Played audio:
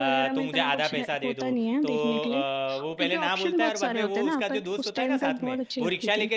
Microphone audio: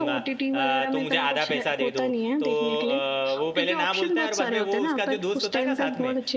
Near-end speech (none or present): none